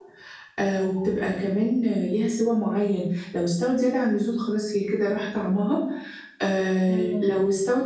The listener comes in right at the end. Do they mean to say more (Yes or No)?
No